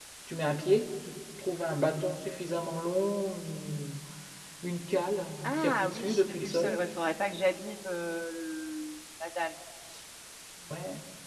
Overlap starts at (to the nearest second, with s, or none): 5 s